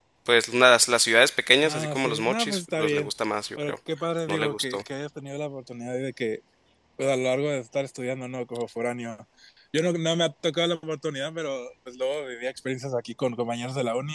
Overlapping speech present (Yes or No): Yes